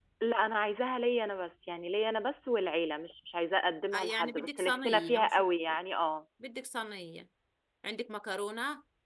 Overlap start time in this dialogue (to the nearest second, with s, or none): 4 s